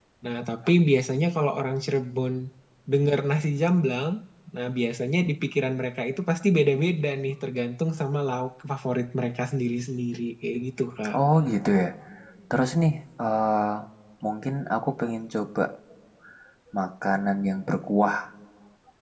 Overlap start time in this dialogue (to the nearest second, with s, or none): none